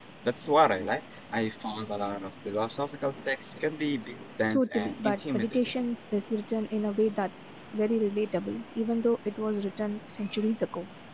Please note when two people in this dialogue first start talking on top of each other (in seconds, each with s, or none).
4.5 s